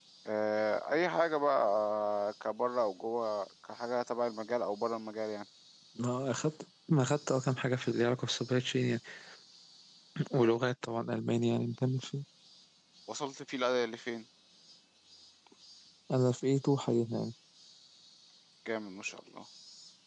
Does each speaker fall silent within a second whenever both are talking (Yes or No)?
Yes